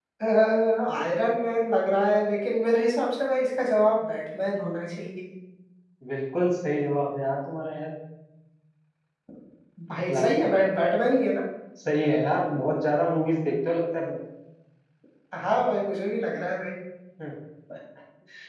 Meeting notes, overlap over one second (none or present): none